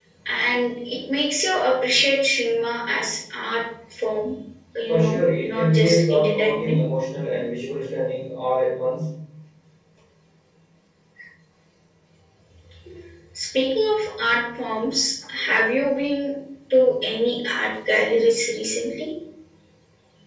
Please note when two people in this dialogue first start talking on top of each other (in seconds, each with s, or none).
4.9 s